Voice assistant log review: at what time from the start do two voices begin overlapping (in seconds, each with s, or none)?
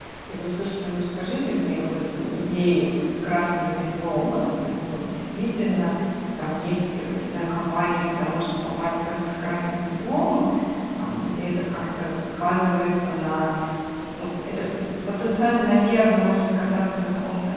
none